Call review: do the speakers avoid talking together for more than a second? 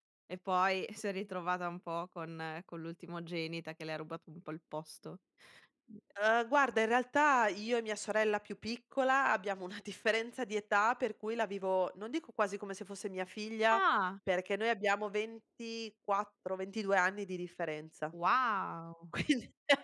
Yes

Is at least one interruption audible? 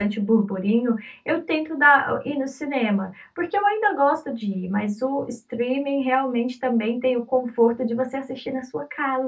No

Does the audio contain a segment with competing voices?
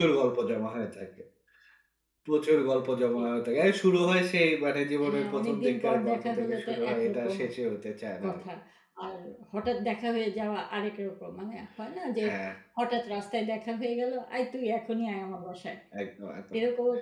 Yes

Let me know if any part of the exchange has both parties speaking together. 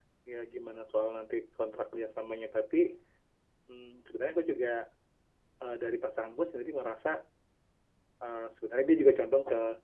No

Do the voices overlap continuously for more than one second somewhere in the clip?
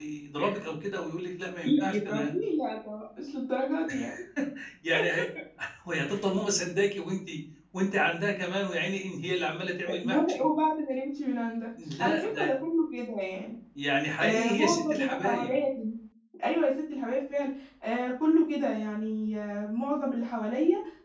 Yes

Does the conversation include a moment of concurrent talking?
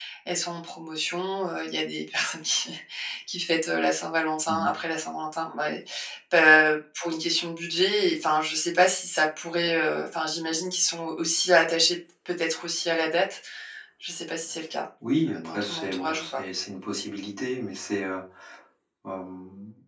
Yes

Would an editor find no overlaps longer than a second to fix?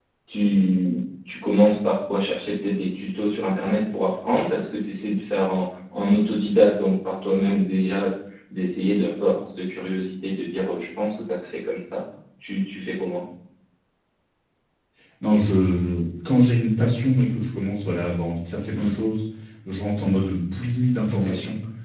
Yes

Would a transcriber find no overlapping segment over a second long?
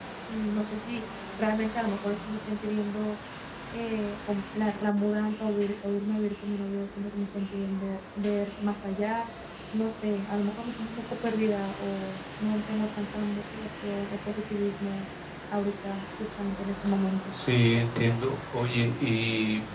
Yes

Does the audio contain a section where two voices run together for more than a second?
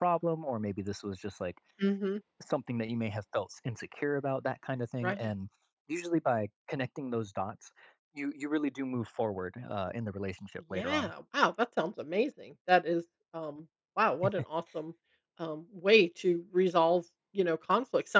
No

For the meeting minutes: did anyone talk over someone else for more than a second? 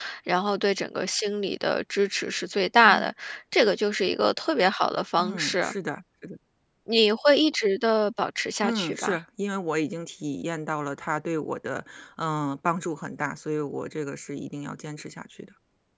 No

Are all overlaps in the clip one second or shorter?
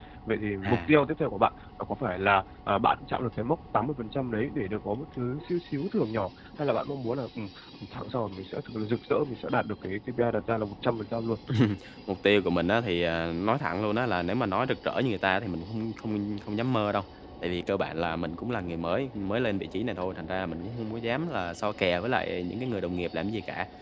Yes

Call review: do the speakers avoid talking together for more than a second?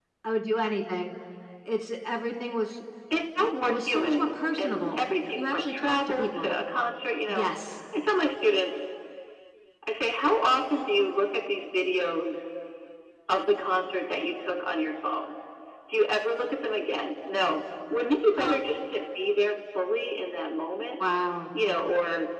No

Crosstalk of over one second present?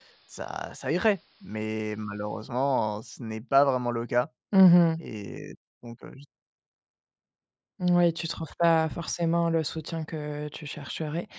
No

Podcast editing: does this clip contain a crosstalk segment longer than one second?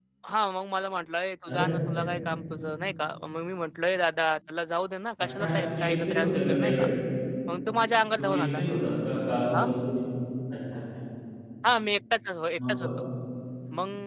Yes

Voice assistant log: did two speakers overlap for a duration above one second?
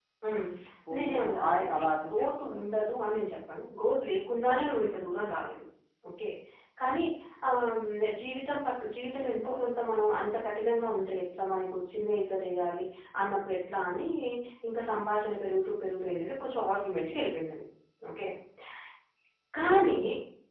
Yes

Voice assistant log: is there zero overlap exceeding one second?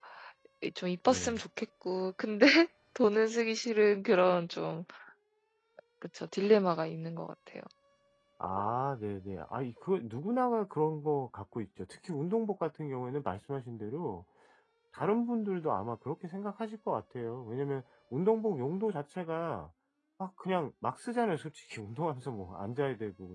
Yes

